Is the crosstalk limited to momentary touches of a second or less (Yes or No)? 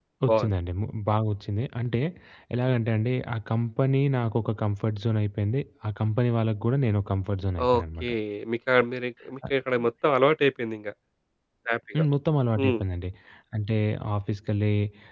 Yes